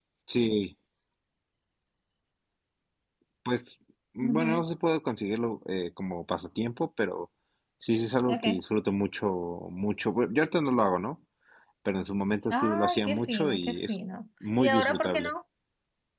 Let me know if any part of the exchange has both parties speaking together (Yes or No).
Yes